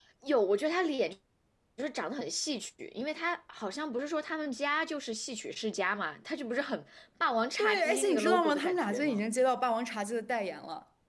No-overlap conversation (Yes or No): No